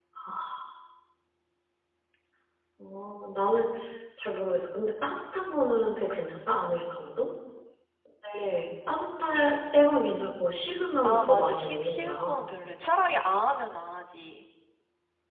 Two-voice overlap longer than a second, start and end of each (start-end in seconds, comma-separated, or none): 11.0-12.5